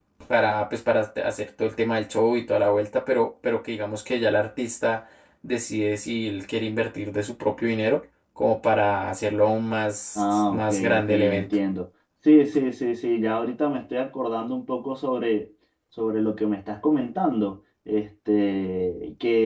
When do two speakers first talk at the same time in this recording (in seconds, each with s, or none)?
10.2 s